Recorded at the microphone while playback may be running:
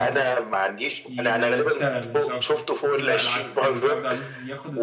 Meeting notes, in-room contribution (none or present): present